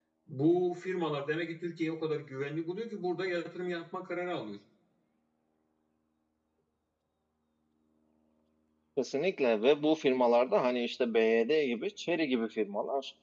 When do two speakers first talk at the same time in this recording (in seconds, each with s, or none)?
none